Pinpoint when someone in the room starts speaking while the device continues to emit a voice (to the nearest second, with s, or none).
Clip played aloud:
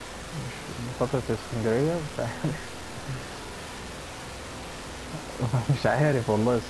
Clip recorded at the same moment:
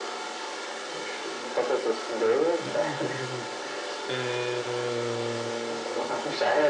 3 s